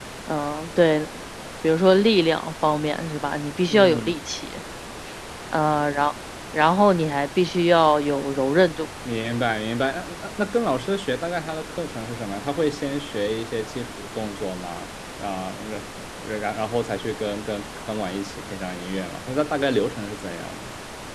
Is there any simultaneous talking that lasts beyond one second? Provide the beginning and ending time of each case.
none

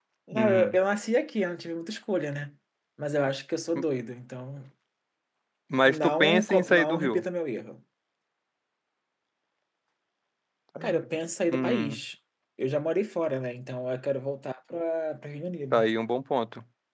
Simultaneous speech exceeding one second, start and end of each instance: 5.8-7.2

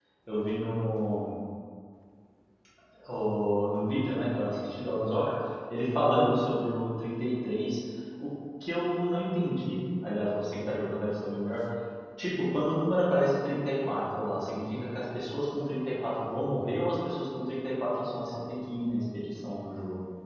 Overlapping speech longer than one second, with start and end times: none

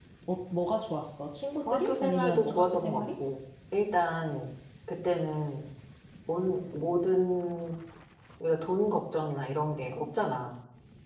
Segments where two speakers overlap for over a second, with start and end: 1.7-3.0

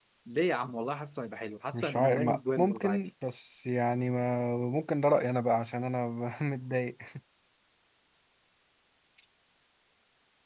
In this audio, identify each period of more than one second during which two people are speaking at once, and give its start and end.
1.7-3.0

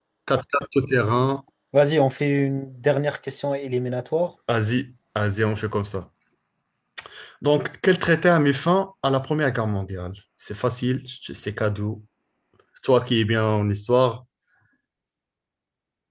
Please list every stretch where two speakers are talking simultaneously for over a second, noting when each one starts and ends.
none

